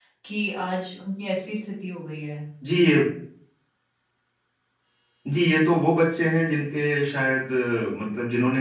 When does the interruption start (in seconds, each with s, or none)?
none